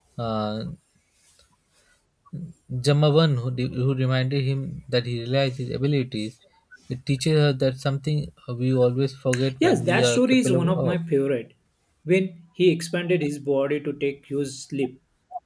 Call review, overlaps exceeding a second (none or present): present